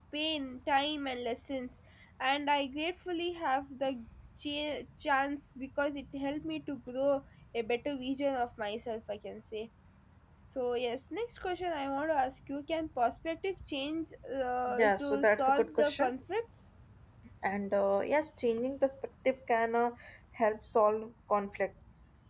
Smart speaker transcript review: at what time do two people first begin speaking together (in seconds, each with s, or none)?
14.7 s